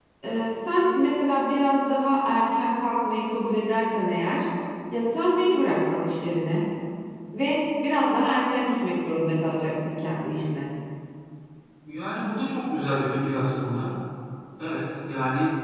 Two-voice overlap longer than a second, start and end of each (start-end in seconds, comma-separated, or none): none